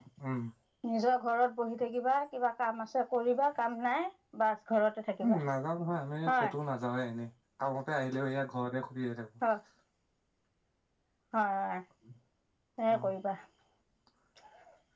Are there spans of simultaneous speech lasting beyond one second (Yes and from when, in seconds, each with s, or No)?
No